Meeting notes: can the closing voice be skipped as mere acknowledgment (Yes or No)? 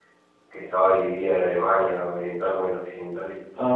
No